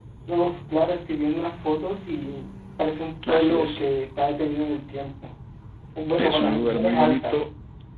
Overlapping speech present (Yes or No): Yes